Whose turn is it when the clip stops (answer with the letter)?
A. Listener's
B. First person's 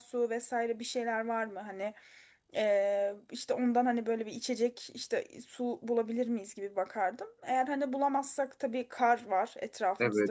A